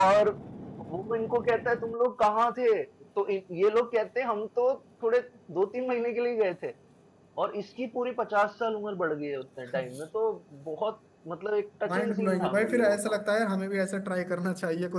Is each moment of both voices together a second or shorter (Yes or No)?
No